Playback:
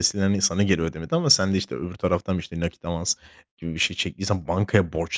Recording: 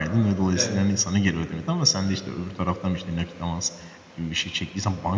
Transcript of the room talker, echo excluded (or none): Evet,